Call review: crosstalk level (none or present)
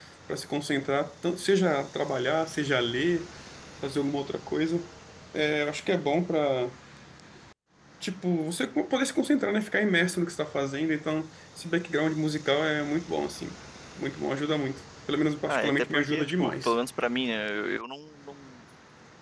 present